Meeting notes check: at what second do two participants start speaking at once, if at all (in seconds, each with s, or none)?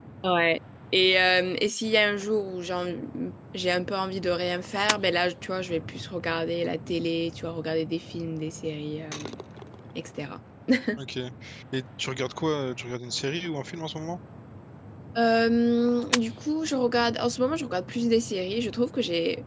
none